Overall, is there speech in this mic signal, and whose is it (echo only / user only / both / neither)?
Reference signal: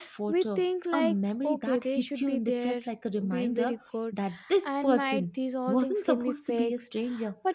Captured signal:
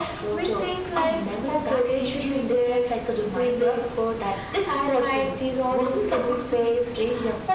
echo only